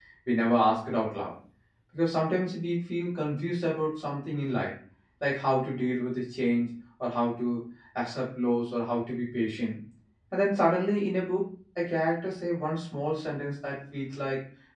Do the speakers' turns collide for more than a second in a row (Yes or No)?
No